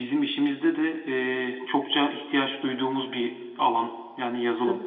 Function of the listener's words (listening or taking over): taking over